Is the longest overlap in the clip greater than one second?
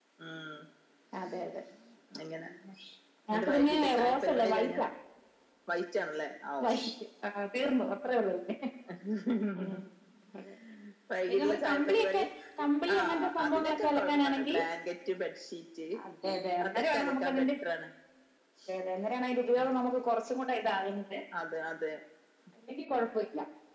Yes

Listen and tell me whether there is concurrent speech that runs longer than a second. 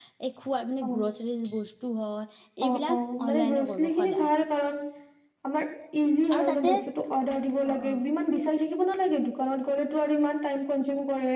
Yes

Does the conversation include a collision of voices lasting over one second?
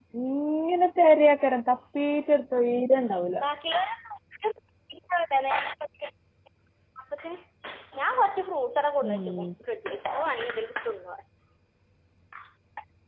No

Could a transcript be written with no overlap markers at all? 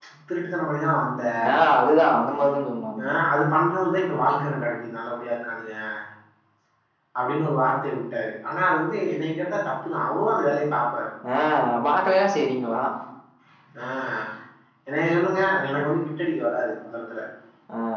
Yes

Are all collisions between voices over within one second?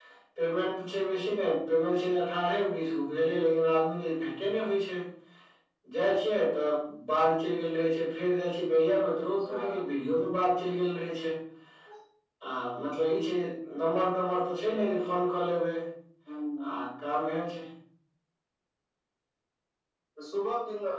Yes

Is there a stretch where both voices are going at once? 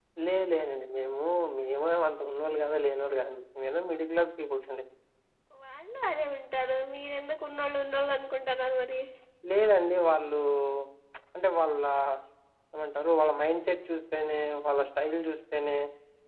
No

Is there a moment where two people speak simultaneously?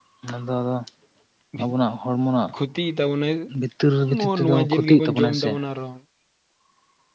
Yes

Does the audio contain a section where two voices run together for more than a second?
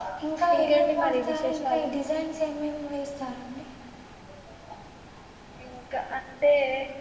Yes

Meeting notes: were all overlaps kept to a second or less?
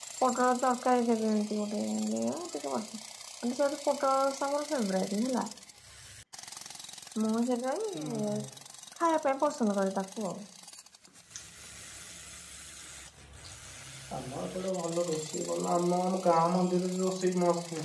Yes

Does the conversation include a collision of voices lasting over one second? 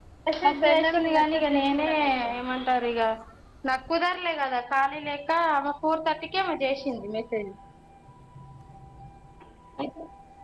Yes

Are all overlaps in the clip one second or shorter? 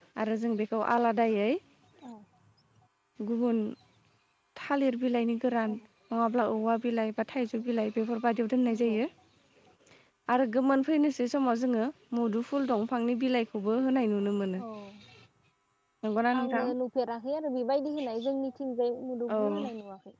Yes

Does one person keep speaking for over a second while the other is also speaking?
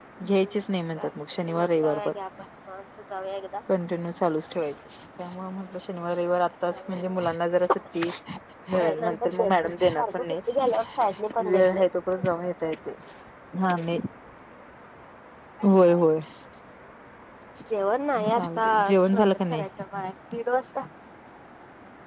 Yes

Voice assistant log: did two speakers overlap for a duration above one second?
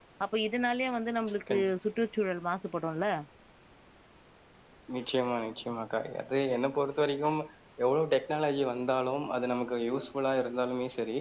No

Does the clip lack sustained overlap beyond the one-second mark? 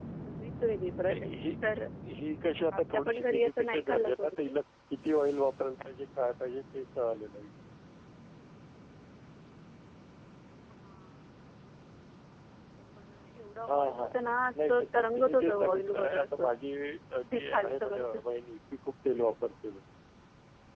No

